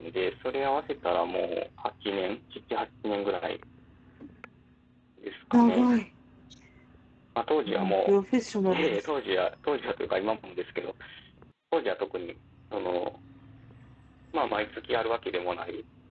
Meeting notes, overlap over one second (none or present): none